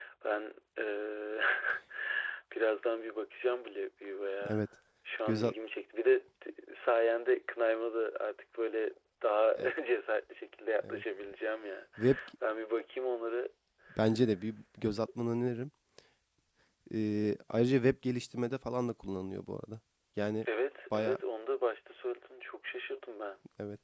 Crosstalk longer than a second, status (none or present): none